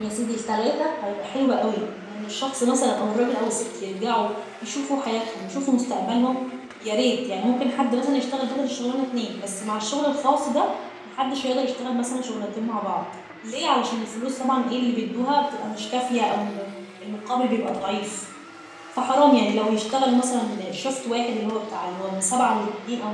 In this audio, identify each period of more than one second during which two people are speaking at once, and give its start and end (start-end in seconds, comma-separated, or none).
none